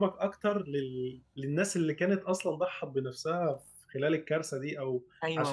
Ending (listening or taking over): taking over